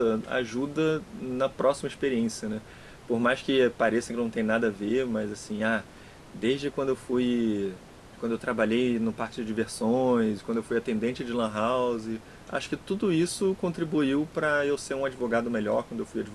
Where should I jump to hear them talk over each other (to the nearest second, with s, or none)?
none